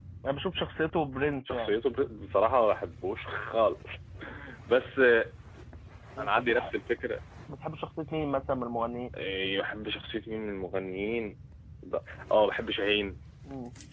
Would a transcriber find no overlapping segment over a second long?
Yes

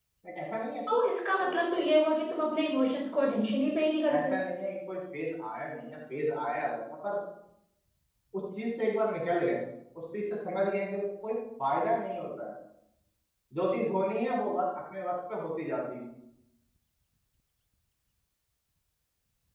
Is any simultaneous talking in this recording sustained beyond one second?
No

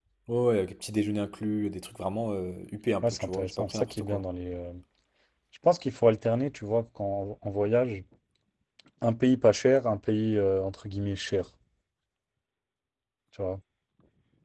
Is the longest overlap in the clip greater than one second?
Yes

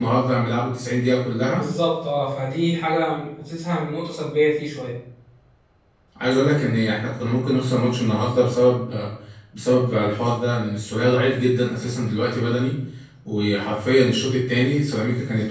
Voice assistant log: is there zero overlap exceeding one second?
Yes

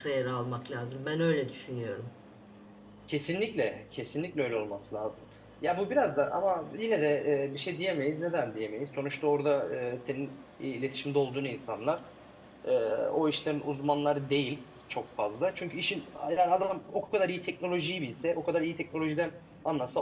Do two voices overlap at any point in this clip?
No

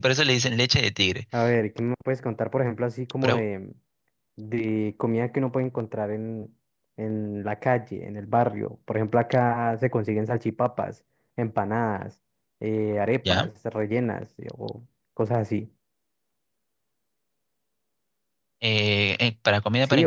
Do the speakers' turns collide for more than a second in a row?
No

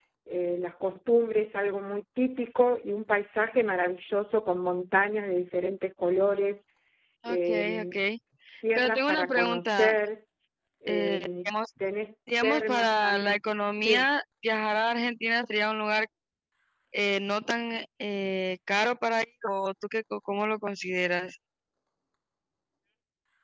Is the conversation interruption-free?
No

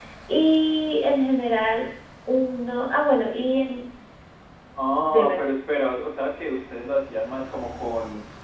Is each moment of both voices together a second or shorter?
Yes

